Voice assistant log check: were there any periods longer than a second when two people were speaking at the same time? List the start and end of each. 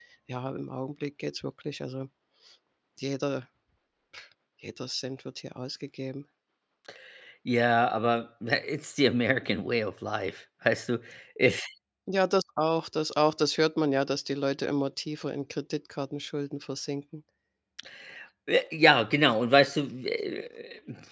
none

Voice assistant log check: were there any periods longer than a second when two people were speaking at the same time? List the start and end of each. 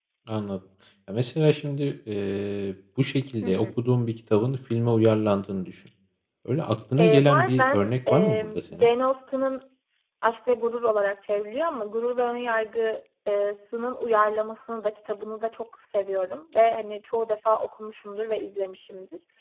7.0-8.9

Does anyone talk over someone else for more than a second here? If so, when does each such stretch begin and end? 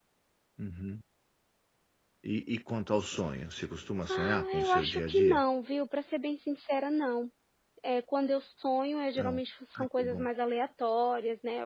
4.1-5.4

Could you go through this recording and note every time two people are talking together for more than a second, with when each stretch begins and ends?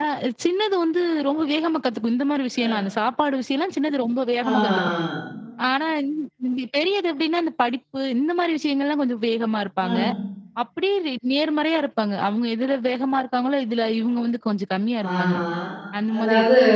none

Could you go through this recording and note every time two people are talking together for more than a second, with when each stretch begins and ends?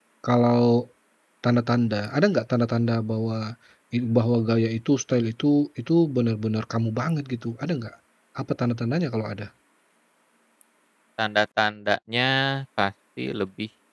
none

